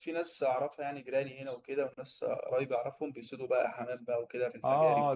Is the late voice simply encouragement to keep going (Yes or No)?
No